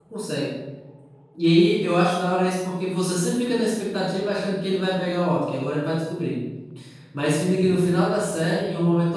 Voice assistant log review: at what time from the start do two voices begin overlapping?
none

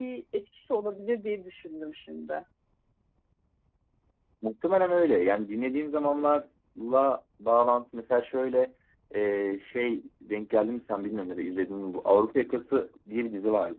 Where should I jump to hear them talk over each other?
none

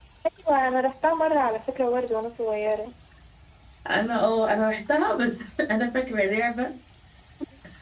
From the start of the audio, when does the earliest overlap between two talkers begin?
none

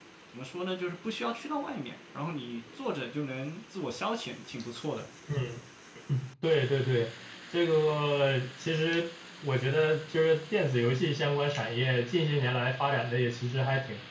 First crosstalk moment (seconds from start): none

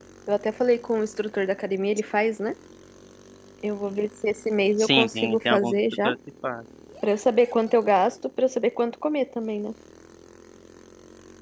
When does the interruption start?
4.8 s

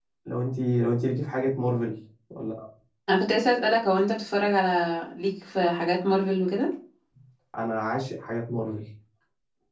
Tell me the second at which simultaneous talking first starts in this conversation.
none

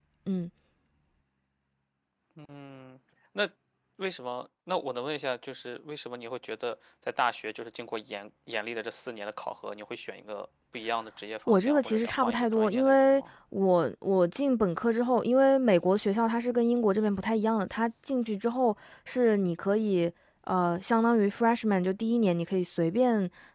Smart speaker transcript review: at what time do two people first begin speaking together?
11.5 s

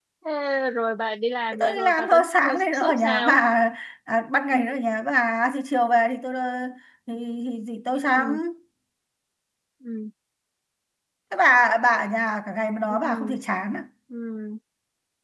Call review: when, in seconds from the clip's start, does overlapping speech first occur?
1.5 s

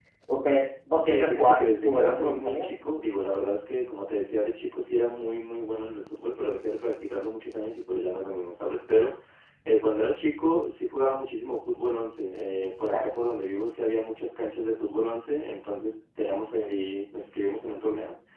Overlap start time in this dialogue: 1.0 s

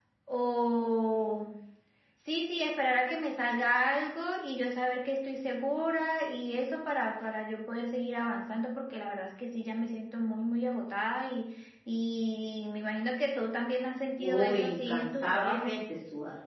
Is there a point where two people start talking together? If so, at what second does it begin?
14.2 s

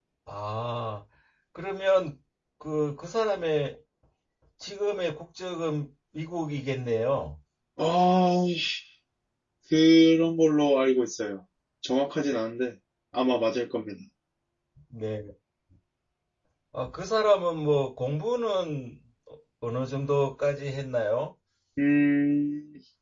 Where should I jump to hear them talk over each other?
none

